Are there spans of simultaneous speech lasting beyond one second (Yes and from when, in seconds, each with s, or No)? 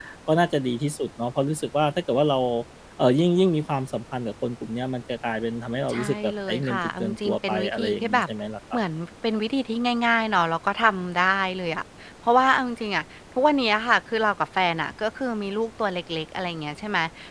Yes, from 5.9 s